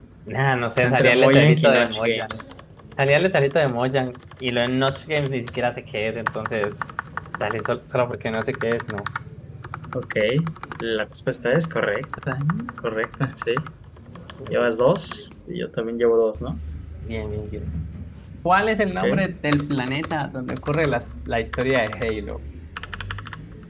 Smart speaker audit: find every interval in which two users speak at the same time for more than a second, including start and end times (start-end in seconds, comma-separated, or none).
0.8-2.4